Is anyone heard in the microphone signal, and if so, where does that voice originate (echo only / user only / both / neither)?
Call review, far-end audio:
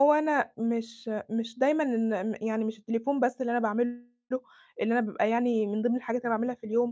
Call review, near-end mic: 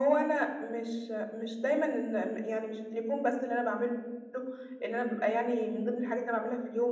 echo only